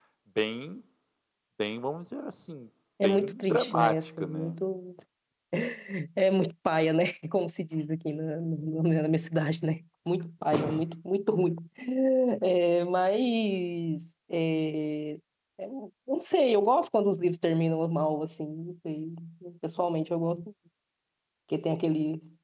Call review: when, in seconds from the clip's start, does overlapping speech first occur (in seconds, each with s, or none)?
3.0 s